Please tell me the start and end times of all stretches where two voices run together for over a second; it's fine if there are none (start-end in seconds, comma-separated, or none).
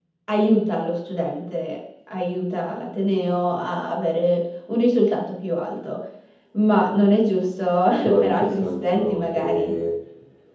8.2-9.7